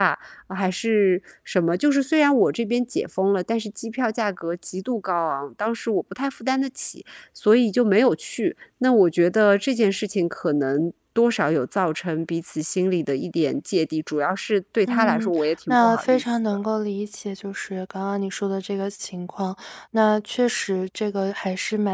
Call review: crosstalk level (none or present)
present